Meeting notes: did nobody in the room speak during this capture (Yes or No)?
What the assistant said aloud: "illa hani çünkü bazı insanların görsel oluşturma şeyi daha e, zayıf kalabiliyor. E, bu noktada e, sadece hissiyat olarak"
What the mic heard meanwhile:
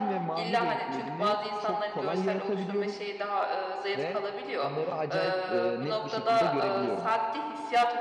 No